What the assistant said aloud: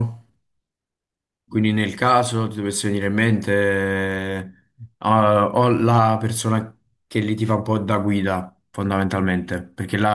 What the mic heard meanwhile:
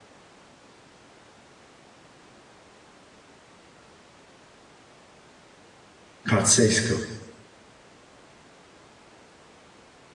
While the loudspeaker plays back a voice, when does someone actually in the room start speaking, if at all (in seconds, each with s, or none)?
6.3 s